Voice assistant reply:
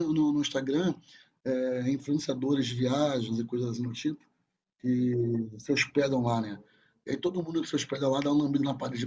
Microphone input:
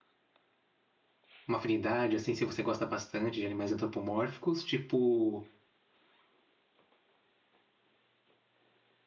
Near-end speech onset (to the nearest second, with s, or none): 1 s